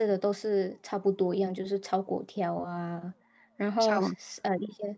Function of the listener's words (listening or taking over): listening